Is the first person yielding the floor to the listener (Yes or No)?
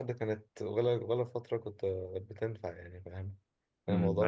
Yes